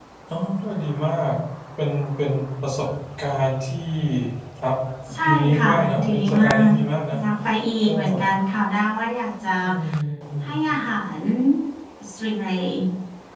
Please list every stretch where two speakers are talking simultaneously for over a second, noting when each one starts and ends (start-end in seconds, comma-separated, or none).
5.2-6.7